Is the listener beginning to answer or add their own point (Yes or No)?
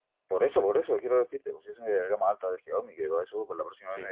No